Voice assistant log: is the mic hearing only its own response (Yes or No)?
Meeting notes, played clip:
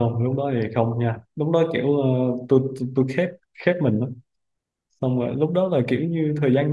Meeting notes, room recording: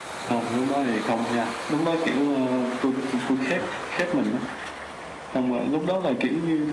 Yes